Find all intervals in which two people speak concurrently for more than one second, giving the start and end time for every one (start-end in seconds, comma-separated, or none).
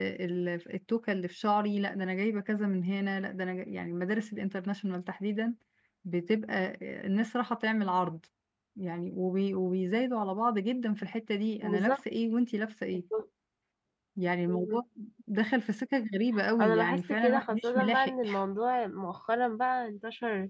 16.6-18.1